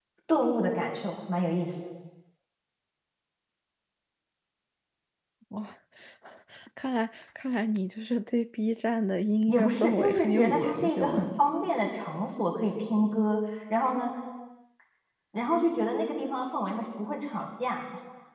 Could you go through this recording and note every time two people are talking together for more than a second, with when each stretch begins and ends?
9.5-11.3

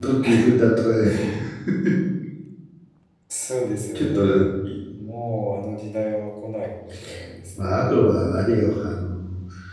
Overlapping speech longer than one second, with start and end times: none

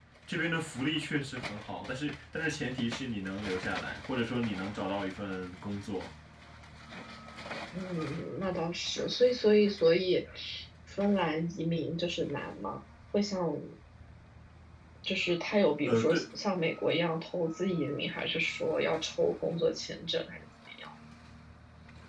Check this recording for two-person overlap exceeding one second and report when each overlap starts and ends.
none

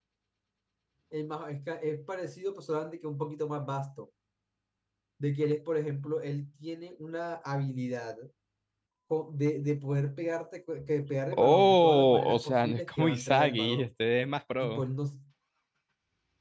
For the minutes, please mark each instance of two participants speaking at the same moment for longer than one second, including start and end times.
11.4-13.9

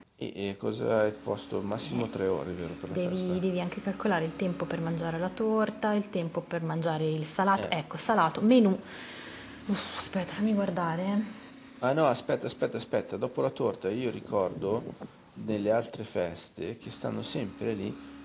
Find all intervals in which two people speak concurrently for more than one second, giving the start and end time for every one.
none

